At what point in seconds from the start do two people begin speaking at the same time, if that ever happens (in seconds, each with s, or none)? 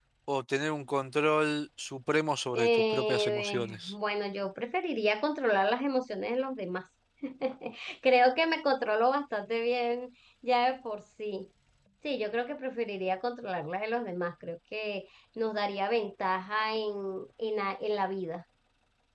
2.5 s